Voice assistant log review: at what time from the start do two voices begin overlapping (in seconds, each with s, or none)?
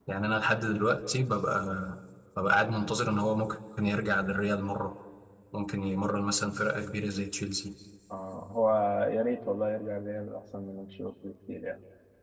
none